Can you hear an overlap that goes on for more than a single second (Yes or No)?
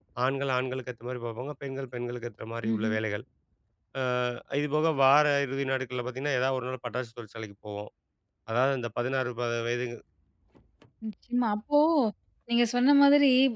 No